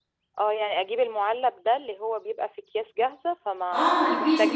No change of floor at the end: No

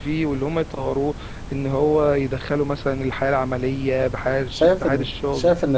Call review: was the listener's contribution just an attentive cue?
No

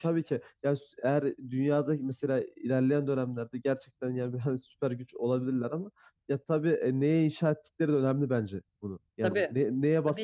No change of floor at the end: Yes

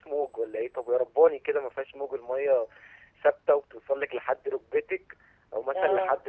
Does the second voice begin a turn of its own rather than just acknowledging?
No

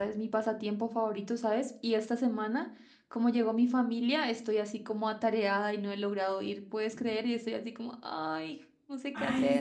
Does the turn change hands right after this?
Yes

